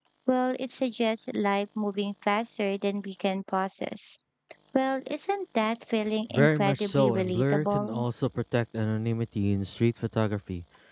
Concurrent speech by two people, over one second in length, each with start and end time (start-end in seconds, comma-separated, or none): 6.3-8.0